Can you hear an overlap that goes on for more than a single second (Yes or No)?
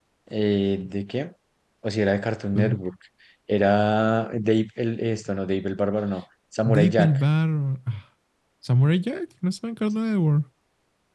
No